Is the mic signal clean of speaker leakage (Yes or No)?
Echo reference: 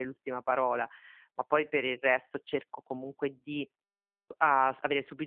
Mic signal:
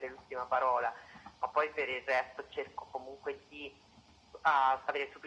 No